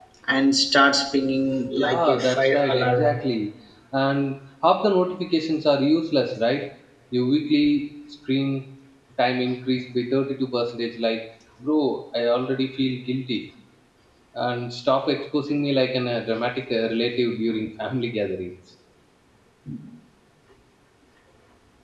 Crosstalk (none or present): present